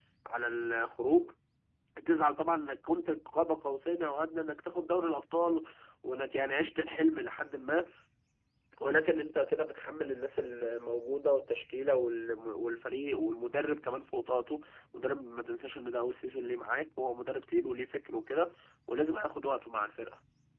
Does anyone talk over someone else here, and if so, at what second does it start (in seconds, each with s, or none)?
none